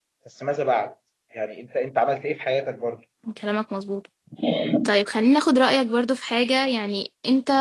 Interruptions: none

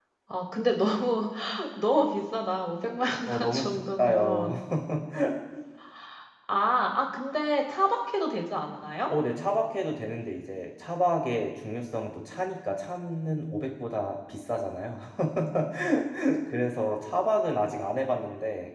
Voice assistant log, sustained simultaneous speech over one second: present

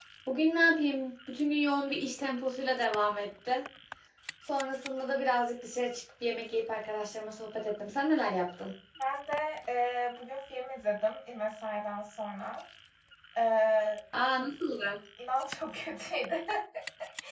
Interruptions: none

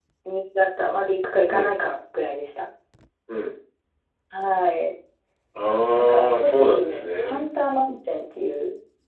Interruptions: present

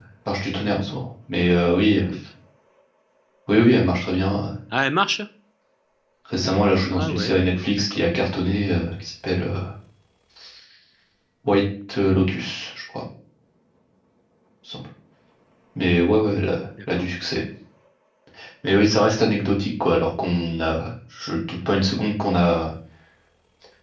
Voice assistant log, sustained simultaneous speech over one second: none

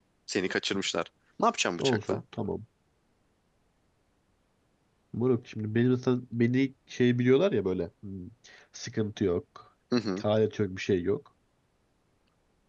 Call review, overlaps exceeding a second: none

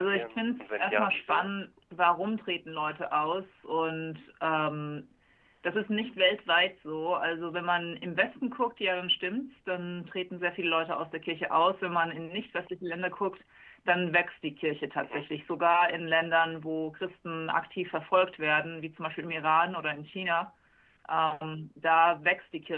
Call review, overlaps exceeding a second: present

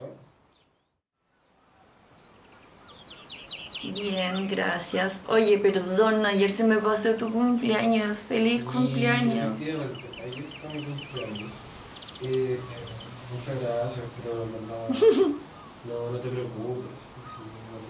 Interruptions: present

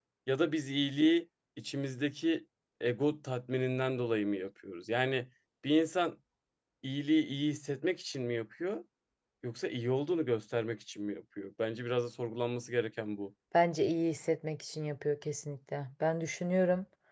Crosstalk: none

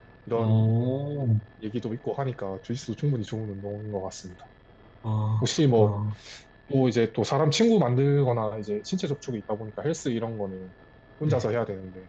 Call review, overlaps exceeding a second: none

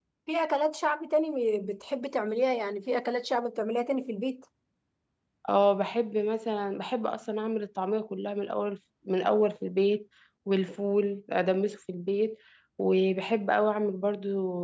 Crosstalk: none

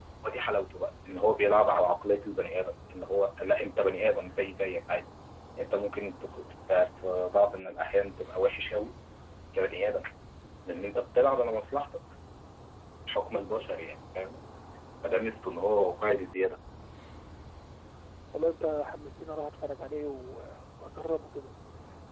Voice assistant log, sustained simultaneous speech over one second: none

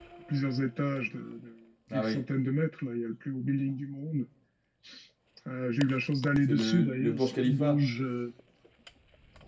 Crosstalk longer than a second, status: present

